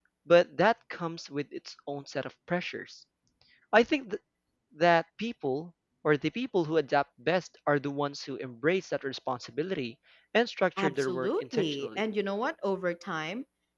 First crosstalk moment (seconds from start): 10.8 s

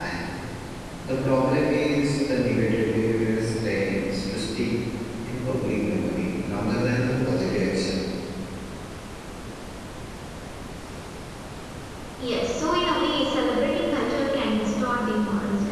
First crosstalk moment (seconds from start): none

